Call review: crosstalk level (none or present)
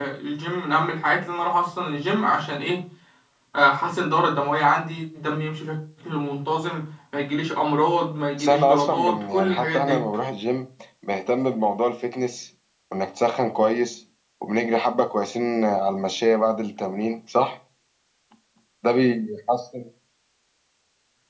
present